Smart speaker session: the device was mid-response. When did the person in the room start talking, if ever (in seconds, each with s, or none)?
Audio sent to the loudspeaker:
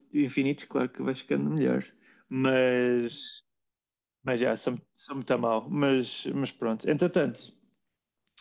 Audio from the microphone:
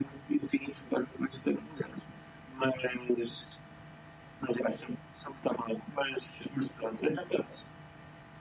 none